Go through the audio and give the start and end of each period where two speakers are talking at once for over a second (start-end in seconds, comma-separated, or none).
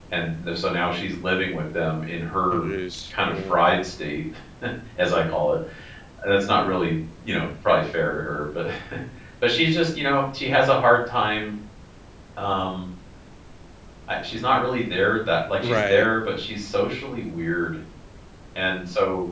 none